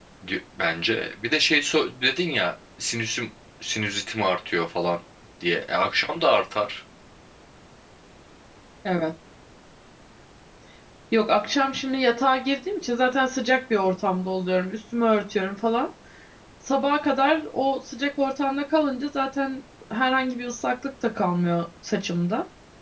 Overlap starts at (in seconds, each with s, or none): none